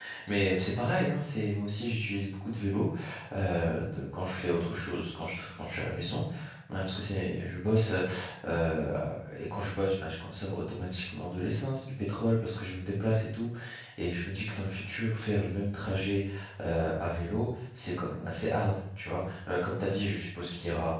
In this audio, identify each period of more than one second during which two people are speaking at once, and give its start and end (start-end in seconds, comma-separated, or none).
none